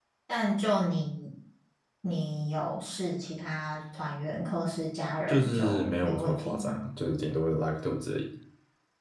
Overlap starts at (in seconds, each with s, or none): 5.3 s